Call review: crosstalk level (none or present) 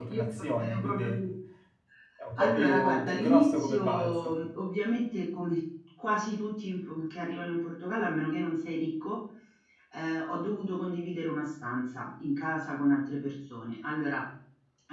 present